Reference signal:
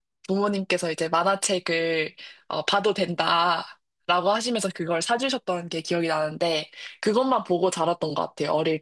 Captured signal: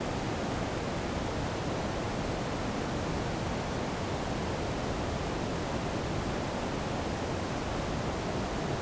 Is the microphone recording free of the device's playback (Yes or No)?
Yes